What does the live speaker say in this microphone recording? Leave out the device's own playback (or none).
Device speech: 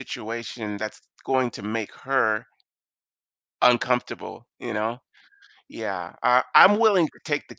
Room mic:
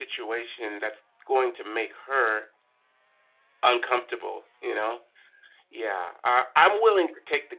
none